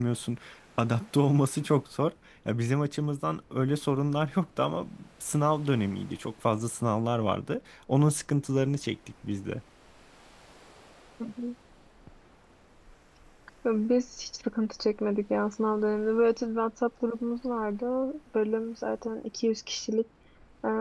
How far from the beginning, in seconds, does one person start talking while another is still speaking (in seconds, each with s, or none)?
none